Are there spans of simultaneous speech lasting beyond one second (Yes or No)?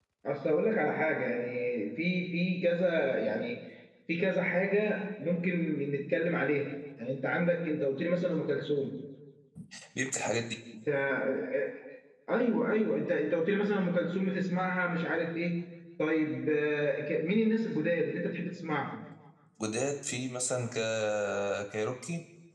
No